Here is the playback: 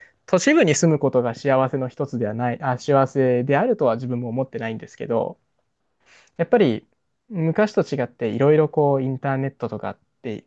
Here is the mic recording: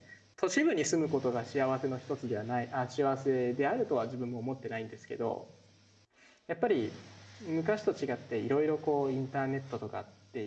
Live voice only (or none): none